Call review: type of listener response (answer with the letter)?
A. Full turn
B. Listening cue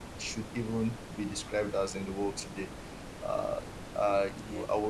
B